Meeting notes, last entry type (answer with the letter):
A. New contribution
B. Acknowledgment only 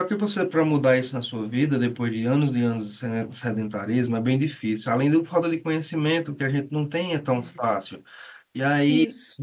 B